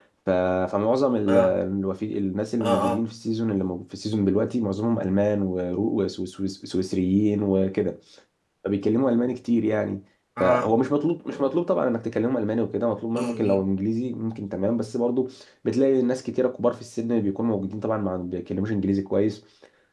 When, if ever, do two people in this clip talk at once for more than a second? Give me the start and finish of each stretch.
none

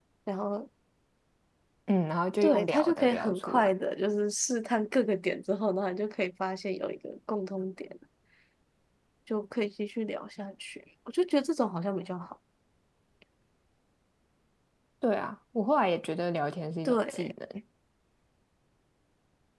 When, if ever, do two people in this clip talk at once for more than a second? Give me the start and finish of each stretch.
2.4-3.7

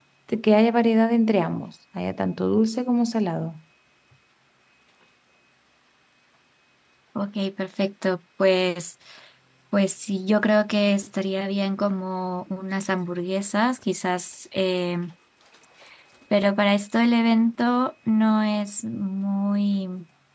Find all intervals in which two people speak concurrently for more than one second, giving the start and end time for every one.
none

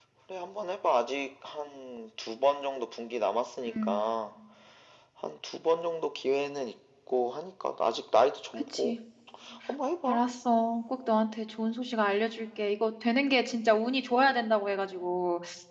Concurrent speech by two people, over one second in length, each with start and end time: none

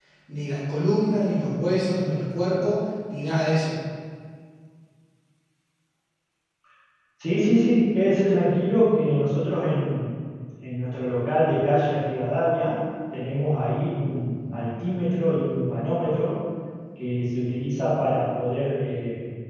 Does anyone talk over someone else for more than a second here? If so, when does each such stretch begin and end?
none

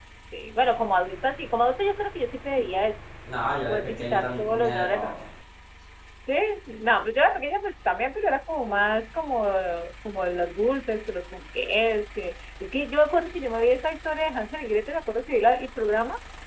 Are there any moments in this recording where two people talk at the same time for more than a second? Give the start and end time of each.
3.7-5.1

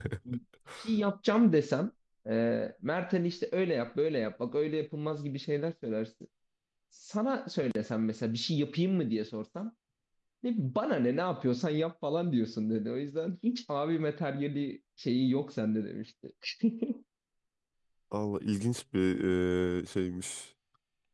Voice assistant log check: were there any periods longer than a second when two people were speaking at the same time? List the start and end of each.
none

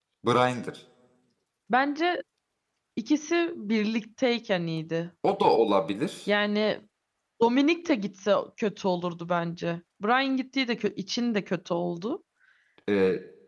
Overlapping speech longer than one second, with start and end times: none

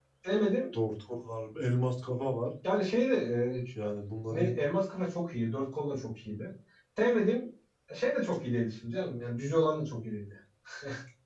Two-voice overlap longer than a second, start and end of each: none

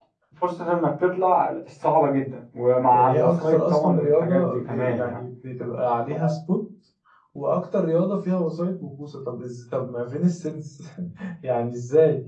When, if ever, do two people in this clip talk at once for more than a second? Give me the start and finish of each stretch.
2.9-5.2

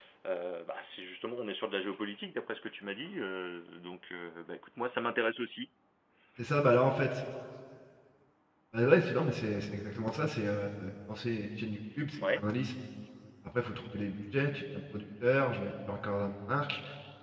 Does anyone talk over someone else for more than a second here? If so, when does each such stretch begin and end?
none

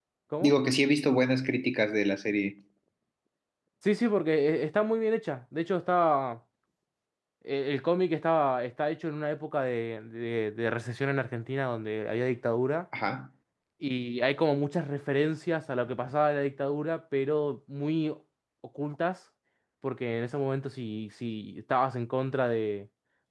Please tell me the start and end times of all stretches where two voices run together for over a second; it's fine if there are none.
none

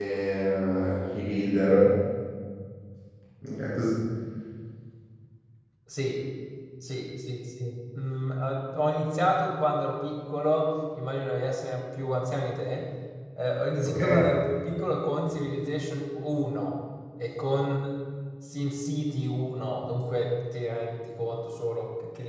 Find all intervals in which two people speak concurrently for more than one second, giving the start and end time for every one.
none

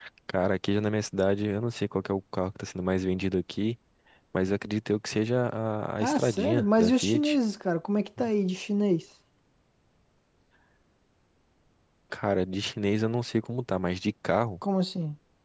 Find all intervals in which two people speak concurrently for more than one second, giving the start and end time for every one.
6.0-7.4

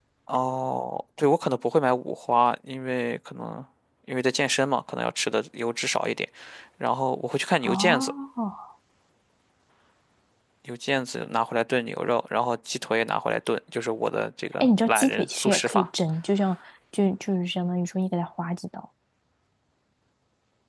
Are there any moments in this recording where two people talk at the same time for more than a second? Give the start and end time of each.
14.6-15.9

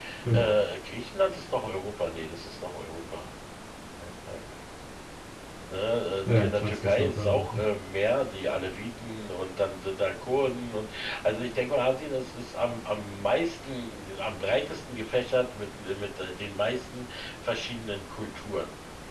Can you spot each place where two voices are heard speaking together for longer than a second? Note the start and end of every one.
6.3-7.6

